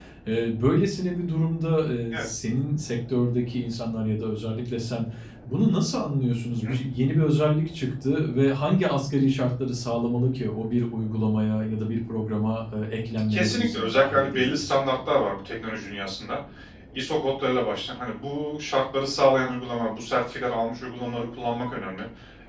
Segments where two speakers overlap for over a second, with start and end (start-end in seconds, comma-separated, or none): 13.3-14.8